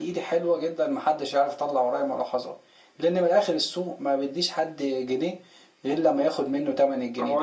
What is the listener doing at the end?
taking over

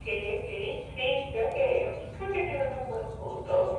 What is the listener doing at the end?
taking over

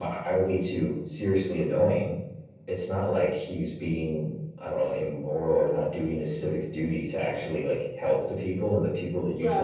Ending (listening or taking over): taking over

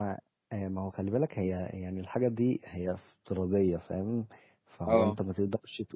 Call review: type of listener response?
listening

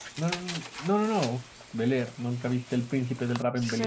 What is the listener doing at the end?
taking over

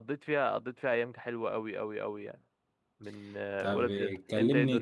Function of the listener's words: taking over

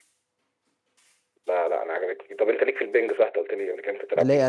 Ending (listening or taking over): taking over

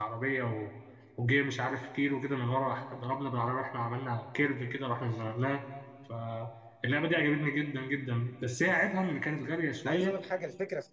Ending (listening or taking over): taking over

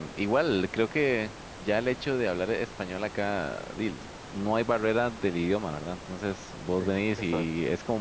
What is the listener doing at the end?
listening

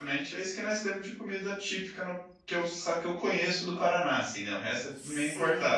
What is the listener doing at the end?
taking over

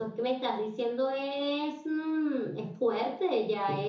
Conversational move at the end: listening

